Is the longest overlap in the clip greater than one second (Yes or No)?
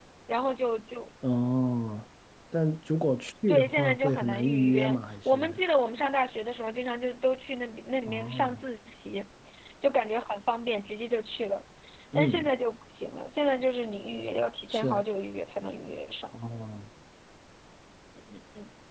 Yes